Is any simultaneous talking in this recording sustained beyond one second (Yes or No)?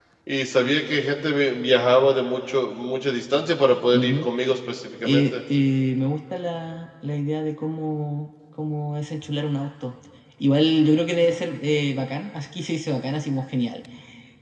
No